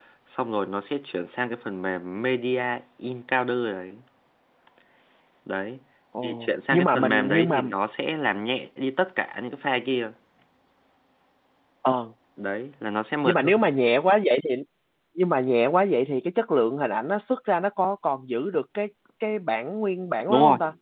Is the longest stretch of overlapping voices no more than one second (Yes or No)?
No